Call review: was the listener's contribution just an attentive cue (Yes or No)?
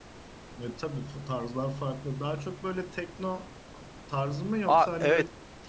No